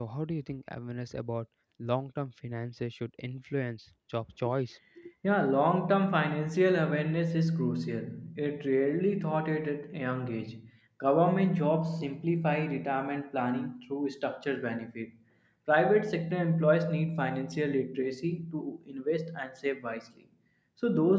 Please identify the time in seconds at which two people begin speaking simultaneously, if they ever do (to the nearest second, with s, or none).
none